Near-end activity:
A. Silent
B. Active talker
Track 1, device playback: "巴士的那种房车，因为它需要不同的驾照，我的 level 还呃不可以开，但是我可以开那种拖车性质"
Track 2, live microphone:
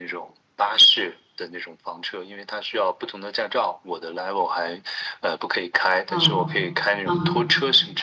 B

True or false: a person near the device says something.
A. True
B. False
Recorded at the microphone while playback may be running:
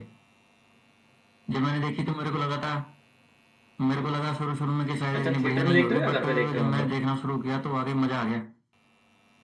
A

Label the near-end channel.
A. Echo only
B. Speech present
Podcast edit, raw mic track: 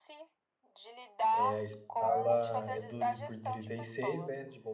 B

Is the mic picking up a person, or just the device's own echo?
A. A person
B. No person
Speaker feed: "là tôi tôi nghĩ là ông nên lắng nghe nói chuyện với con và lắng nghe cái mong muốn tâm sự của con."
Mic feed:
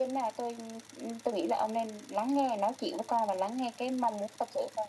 B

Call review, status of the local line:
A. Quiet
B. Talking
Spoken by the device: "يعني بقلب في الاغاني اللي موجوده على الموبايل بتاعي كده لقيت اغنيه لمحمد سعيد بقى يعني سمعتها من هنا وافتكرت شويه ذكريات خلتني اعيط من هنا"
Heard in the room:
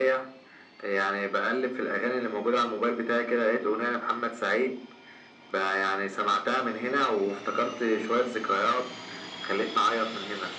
A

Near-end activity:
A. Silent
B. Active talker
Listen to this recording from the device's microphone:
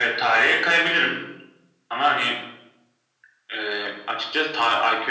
A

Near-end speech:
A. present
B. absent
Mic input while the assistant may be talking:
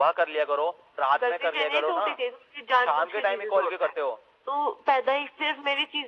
B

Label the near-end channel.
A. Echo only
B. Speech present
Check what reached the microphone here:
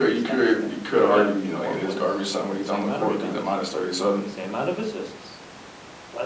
A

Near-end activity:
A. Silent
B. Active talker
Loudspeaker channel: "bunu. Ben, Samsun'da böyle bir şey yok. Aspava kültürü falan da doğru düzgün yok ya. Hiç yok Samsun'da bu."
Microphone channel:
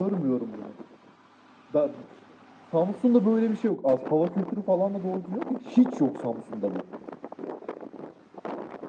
A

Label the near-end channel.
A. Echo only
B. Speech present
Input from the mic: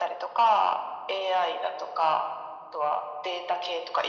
A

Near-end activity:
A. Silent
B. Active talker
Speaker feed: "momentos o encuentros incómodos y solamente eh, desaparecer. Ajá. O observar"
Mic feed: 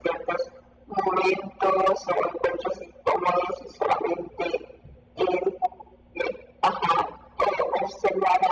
A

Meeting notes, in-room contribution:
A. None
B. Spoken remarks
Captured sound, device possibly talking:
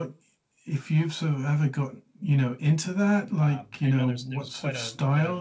B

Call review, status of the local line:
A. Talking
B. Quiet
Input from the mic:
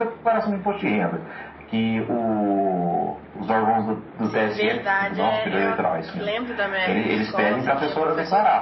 A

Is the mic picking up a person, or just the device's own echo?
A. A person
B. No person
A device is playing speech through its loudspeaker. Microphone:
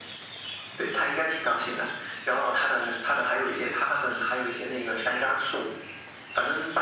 B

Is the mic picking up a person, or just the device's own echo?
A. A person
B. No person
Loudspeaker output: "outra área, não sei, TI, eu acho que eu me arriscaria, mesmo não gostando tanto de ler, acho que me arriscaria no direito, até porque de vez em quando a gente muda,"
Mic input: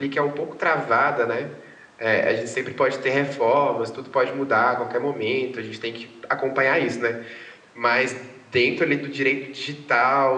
A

